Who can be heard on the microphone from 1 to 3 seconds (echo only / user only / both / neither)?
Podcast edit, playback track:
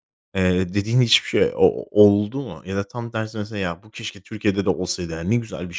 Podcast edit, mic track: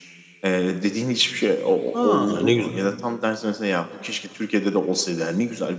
both